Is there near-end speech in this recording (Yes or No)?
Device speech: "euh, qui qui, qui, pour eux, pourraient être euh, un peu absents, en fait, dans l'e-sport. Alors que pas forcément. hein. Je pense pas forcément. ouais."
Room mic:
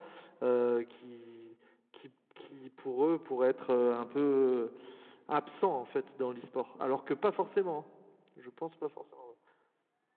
No